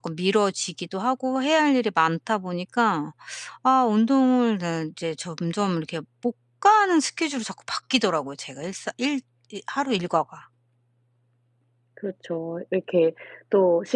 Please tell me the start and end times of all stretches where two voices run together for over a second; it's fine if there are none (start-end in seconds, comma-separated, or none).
none